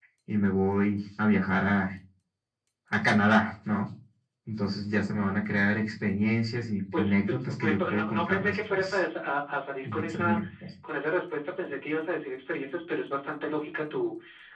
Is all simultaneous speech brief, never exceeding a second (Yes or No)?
No